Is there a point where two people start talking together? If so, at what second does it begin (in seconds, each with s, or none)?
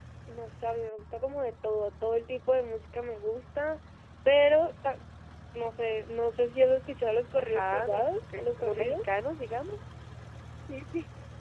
7.4 s